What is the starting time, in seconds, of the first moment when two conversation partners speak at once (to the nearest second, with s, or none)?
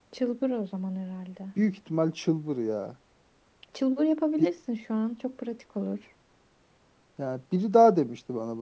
none